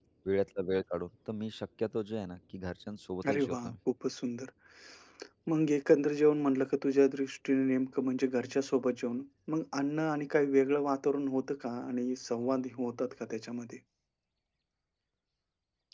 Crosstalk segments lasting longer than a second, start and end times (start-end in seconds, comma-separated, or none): none